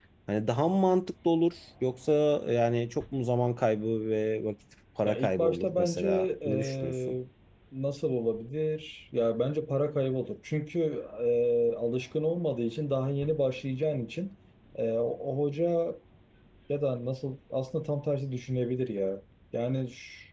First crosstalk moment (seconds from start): 5.1 s

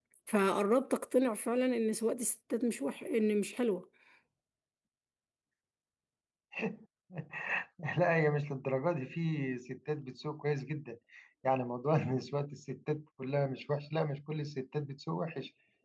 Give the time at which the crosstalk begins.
none

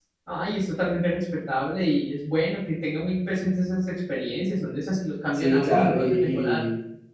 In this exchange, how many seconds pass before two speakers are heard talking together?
5.3 s

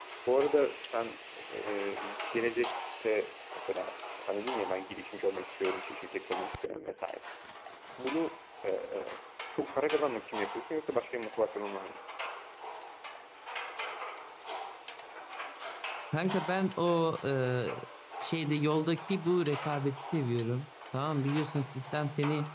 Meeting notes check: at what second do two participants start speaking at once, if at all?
none

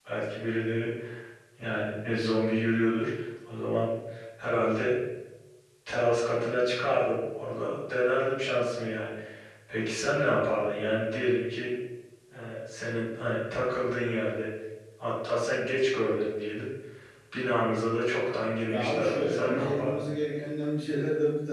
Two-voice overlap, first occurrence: 18.7 s

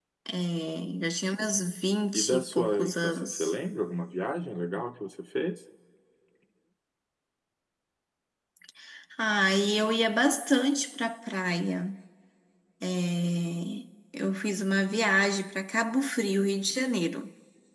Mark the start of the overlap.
2.1 s

